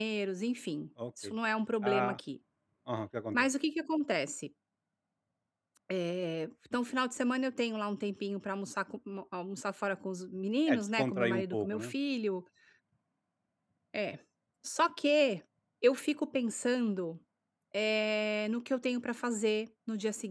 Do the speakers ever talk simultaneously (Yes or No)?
Yes